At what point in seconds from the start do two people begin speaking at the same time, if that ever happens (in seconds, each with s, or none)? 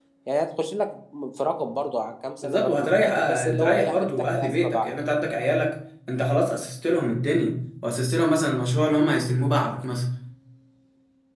2.4 s